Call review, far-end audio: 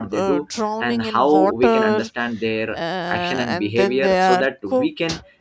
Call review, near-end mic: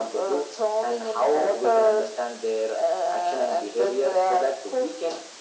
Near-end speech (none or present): none